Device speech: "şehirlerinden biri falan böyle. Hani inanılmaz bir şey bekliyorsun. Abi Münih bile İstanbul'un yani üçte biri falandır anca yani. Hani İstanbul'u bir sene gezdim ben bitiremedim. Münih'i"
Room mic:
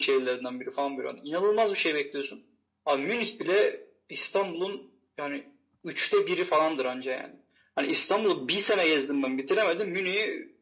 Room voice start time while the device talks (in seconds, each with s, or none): none